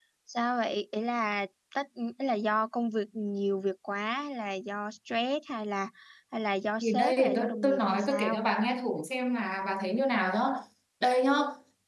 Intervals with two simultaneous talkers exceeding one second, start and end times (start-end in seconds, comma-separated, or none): 6.8-8.4